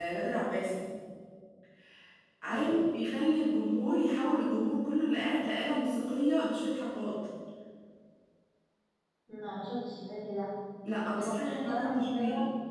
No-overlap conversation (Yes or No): No